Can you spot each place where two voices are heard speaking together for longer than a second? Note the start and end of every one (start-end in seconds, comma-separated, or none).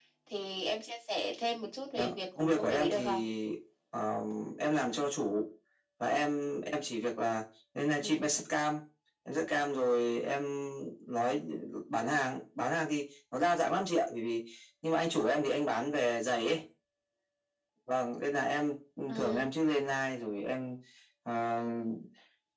2.0-3.2